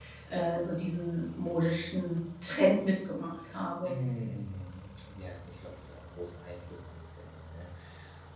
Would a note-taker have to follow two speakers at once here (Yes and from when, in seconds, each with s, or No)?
No